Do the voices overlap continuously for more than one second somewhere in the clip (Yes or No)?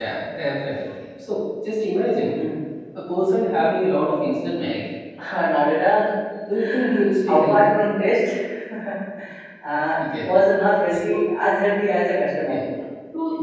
No